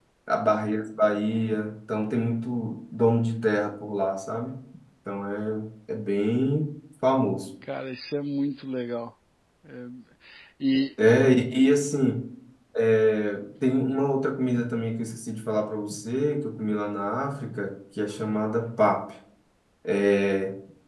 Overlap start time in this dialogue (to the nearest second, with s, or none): none